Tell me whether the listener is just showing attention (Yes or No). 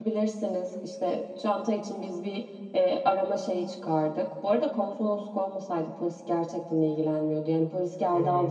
No